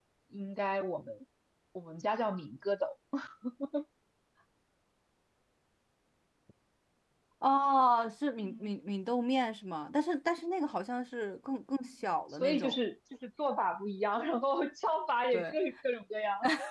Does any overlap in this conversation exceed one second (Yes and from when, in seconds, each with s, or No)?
No